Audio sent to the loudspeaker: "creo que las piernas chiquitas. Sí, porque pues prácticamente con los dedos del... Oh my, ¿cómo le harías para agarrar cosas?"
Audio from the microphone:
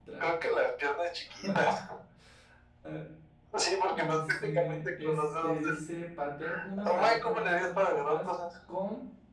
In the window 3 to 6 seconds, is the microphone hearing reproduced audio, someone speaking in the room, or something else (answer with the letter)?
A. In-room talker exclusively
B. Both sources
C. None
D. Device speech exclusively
B